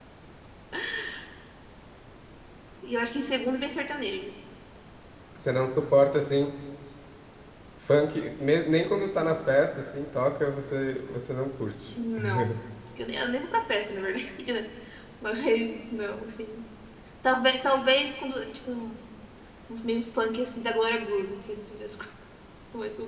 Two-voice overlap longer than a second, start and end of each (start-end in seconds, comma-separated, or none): none